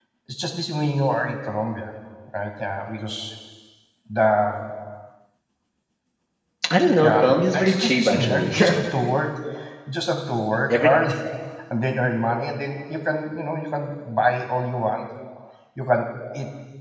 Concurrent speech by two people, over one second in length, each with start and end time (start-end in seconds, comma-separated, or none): 7.0-8.5